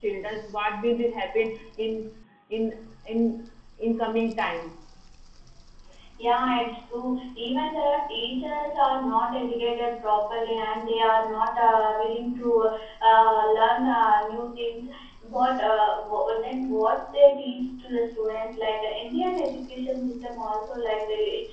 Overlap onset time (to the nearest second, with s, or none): none